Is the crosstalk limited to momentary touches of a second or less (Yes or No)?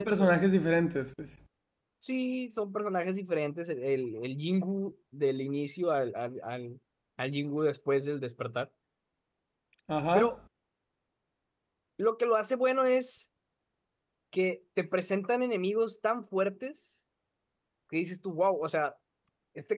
Yes